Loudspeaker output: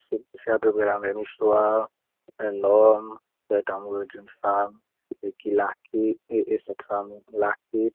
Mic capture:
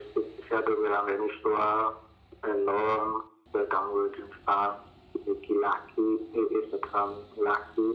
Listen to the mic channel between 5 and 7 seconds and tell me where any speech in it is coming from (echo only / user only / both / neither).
echo only